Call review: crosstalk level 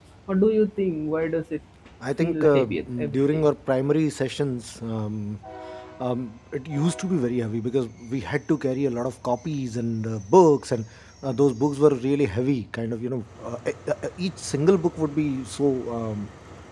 present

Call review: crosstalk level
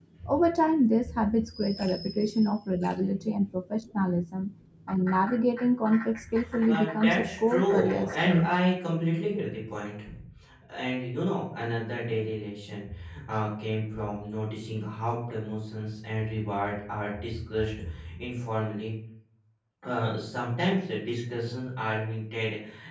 present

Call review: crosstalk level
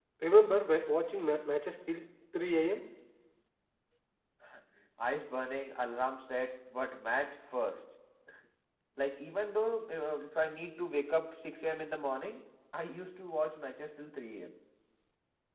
none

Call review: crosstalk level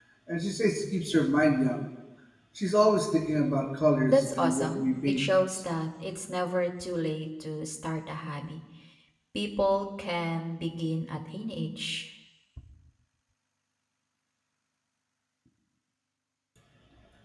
present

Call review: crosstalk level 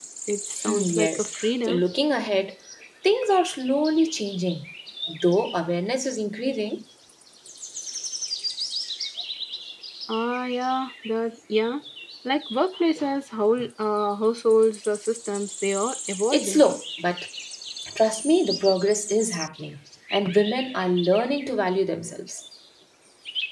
present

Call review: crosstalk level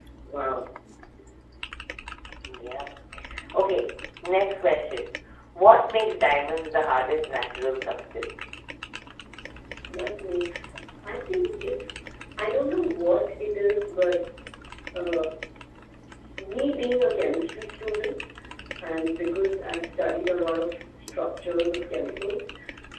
none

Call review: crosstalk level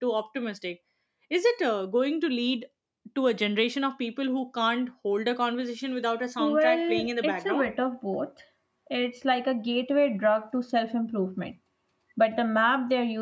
present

